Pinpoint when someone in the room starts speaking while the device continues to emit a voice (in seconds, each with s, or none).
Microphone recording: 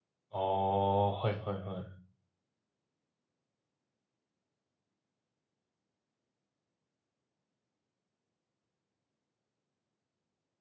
0.3 s